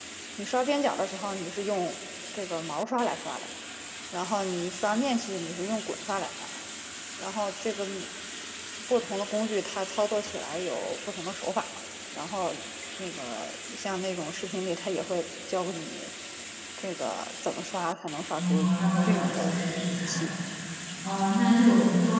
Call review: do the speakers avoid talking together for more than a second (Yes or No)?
No